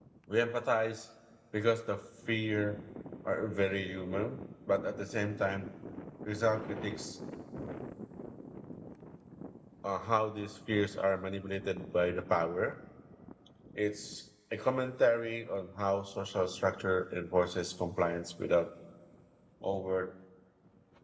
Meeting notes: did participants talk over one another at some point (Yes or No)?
No